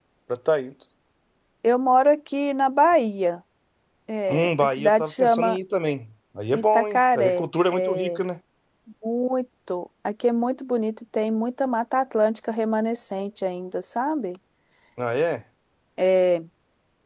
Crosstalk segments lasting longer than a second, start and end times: 4.3-5.6, 6.5-8.2

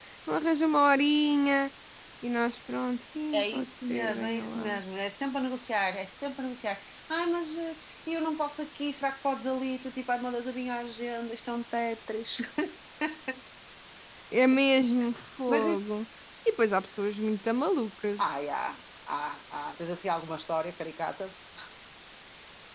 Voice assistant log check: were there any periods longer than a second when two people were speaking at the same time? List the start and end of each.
3.3-4.8

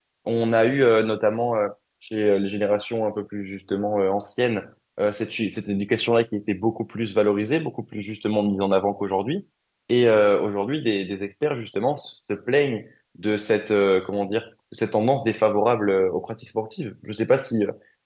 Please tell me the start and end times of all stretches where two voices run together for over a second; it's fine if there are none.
none

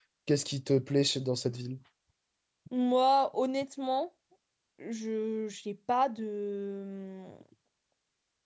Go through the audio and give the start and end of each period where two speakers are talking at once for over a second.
none

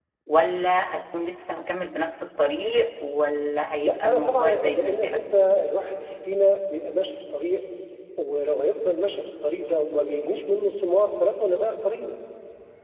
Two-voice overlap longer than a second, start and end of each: 3.8-5.2

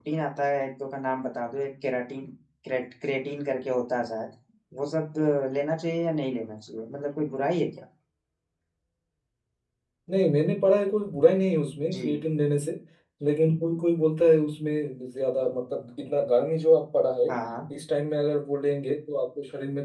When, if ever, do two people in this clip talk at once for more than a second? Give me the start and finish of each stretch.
none

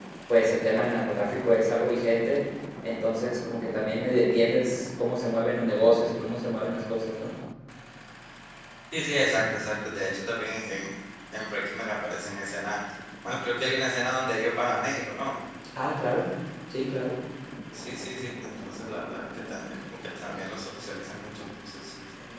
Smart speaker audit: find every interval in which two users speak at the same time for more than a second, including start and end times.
none

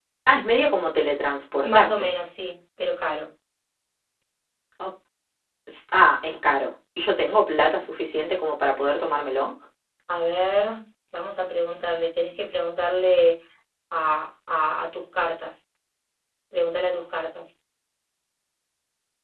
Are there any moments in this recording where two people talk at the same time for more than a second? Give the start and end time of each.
none

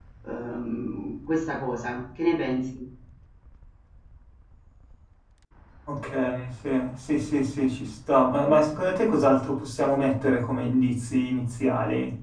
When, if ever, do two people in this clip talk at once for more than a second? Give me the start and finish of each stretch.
none

